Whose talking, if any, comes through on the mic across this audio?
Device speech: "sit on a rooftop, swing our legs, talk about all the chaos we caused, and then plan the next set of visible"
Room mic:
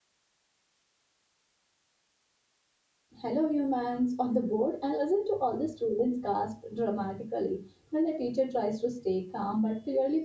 user only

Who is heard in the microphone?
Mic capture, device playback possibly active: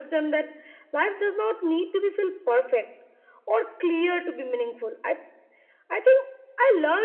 echo only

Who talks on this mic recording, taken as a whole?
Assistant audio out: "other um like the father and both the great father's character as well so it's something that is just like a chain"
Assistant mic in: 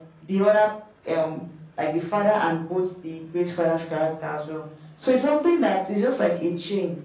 echo only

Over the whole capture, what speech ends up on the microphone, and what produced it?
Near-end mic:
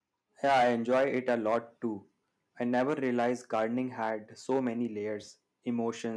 user only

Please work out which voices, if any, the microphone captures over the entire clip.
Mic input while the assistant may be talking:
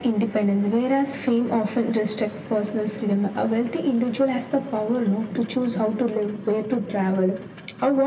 echo only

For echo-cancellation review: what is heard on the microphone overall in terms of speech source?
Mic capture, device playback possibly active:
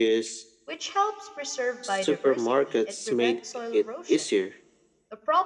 both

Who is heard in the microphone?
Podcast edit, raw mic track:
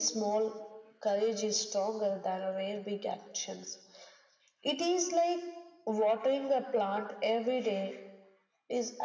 echo only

